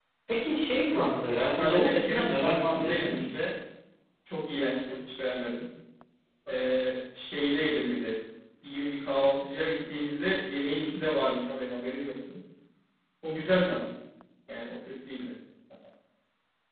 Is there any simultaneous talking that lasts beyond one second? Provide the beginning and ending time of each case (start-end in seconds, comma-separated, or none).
0.9-3.5